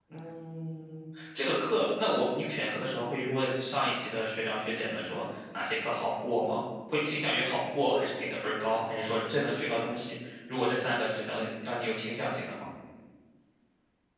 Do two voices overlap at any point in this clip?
No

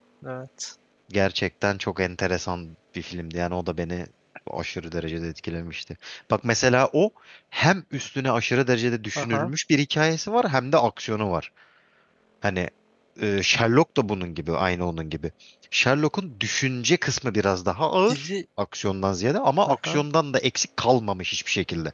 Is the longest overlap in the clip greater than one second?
No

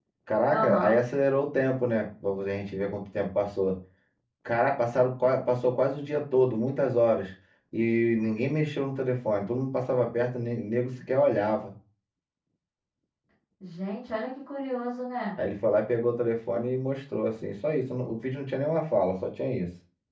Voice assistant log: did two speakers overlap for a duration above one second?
No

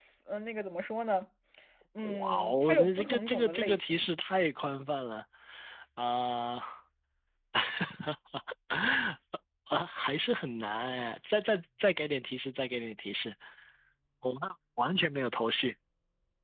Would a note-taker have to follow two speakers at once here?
Yes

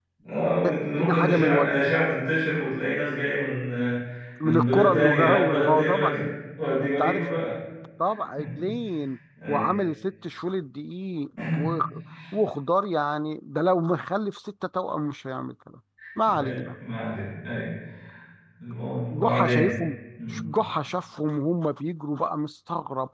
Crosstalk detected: Yes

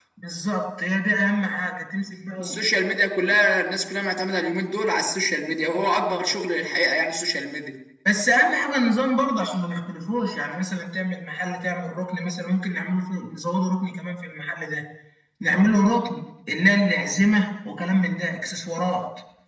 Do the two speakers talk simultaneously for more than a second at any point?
No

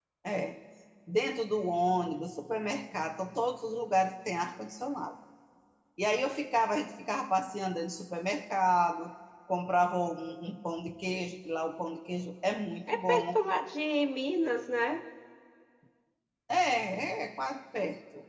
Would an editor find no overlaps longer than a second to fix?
Yes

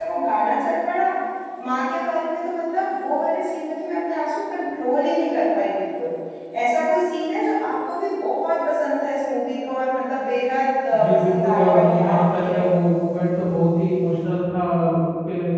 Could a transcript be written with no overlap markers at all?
No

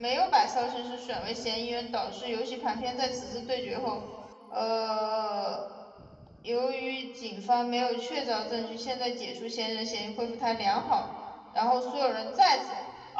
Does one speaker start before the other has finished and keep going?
No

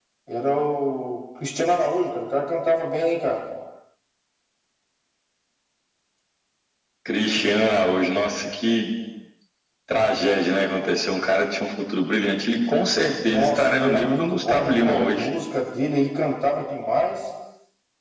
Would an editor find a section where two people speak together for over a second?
Yes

